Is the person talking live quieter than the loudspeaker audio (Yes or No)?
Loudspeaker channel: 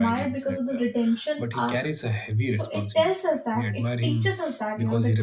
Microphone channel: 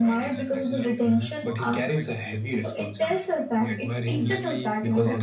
Yes